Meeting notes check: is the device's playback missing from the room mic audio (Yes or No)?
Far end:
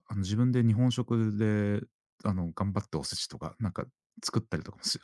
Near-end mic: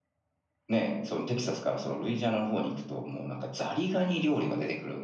Yes